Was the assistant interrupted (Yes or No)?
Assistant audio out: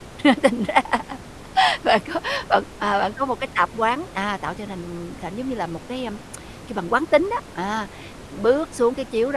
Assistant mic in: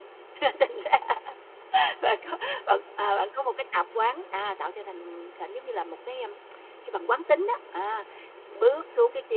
No